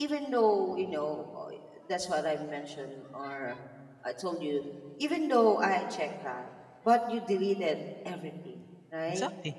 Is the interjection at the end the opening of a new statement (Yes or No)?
No